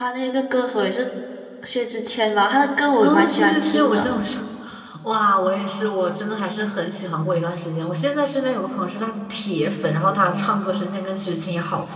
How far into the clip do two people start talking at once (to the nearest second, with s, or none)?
3 s